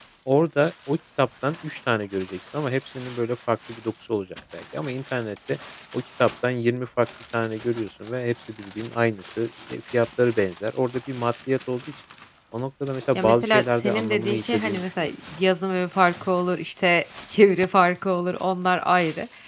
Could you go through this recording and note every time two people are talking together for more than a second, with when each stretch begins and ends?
13.2-15.1

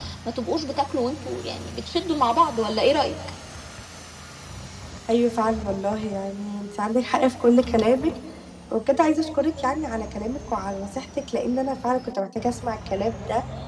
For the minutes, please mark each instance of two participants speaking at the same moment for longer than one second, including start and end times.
none

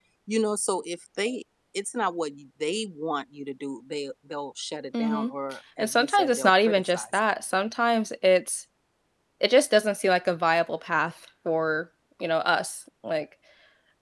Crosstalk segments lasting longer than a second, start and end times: 5.8-7.2

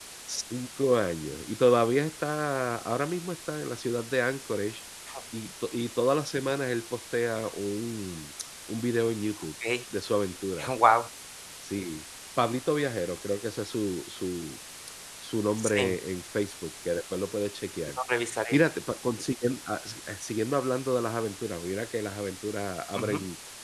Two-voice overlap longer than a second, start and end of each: none

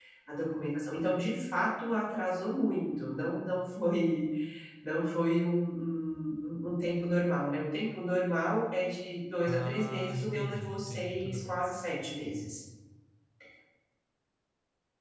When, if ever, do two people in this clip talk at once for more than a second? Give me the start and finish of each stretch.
9.4-11.6

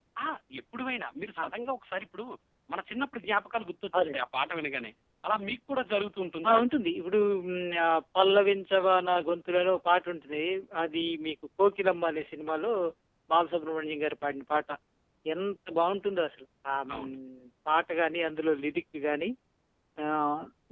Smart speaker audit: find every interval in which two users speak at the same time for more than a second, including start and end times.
none

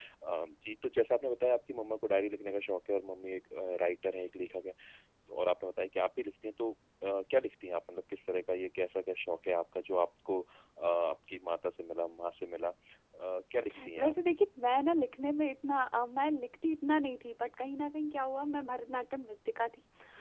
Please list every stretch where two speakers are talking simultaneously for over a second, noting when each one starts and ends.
none

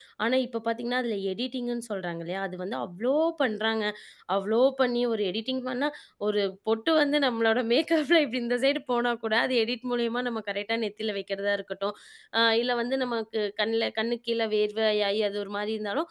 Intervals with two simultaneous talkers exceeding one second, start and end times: none

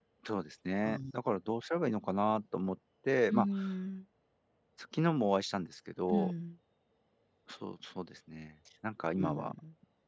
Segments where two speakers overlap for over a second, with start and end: none

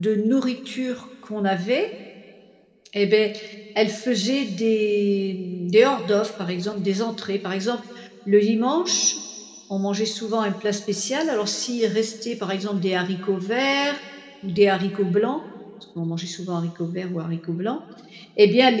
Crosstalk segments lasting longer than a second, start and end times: none

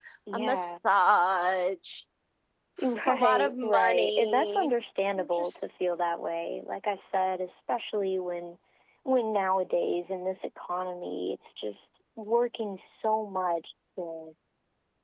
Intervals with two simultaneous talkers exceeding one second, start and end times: 3.1-4.7

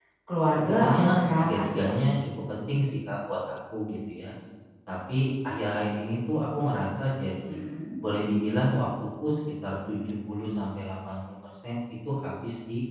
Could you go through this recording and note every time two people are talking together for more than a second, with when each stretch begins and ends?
0.6-1.8

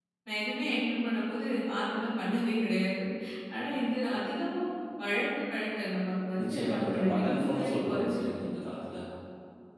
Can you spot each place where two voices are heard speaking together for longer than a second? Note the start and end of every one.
6.4-8.4

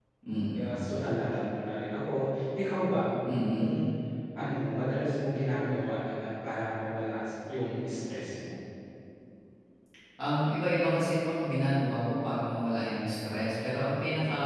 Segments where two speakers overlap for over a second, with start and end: none

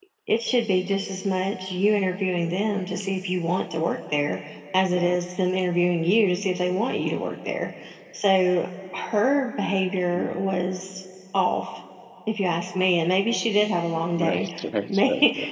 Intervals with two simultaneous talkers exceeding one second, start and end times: none

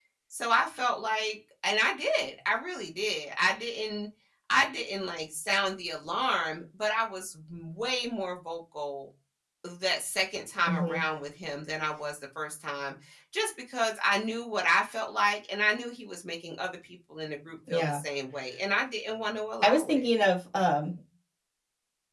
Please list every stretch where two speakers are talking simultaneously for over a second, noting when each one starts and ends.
none

